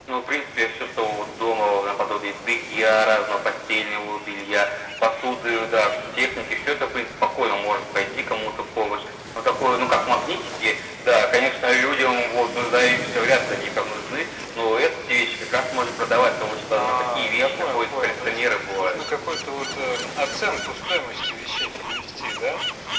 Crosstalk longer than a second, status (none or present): present